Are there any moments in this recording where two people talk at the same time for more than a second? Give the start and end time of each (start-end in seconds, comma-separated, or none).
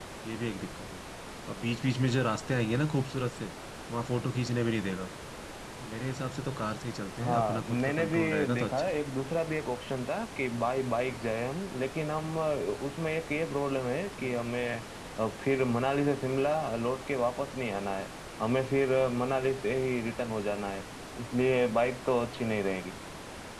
7.2-9.0